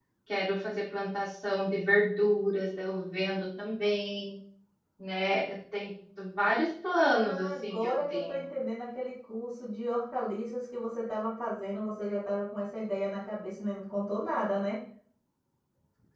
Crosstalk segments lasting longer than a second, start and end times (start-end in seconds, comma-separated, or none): 7.1-8.4